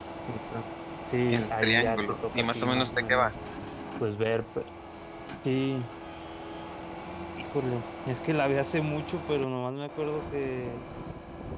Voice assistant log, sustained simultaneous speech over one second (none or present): present